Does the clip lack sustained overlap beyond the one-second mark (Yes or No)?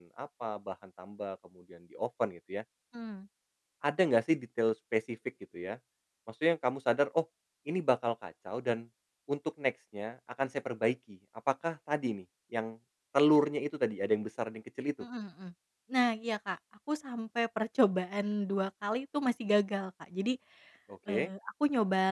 Yes